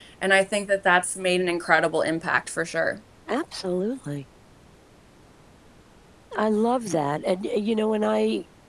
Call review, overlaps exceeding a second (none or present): none